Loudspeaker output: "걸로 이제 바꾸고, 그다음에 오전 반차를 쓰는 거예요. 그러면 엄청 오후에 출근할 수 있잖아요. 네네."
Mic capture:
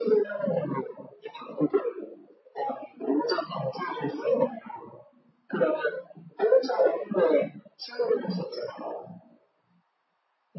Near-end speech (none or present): none